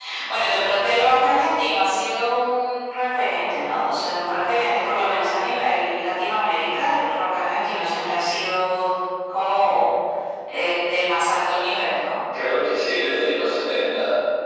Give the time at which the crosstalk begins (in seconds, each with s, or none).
none